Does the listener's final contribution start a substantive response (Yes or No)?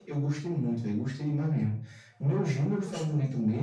No